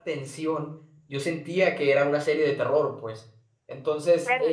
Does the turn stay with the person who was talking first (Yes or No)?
No